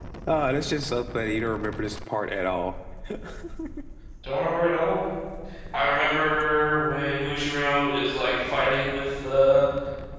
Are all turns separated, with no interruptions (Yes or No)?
Yes